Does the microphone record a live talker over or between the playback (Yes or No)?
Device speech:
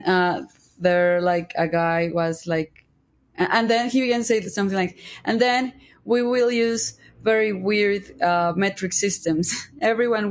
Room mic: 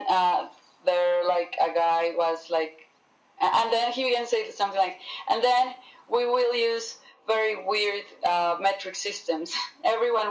No